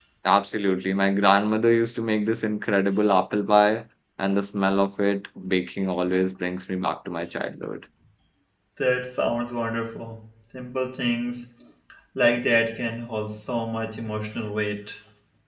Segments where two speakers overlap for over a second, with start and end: none

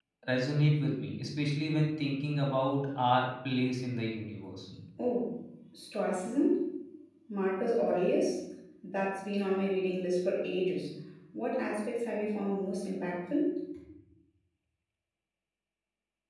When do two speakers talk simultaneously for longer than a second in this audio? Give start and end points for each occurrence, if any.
none

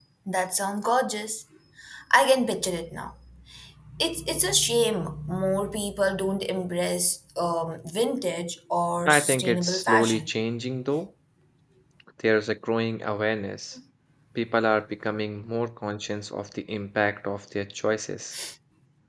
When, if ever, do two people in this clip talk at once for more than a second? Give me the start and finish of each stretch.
9.1-10.3

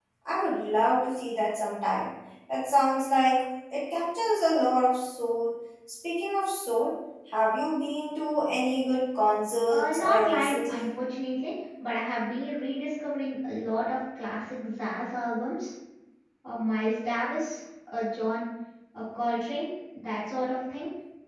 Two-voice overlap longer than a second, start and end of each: 9.6-10.9

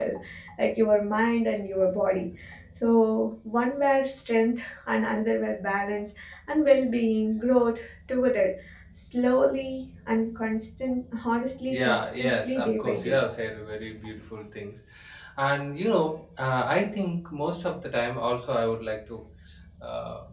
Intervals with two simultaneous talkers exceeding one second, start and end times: 11.7-13.2

